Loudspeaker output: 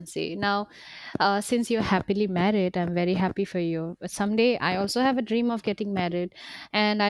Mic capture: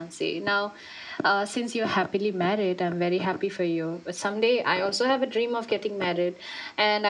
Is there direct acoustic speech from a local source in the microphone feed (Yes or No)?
No